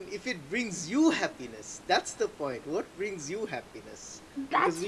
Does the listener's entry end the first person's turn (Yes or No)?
Yes